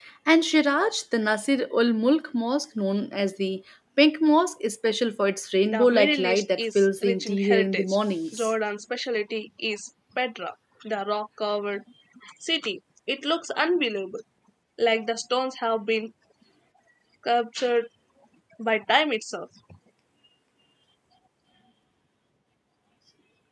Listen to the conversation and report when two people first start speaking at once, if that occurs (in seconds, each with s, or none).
5.7 s